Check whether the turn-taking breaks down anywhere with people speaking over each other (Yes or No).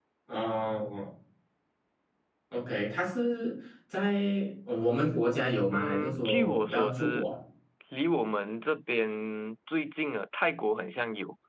Yes